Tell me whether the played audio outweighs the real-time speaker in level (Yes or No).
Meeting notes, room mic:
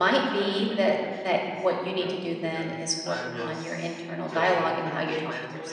No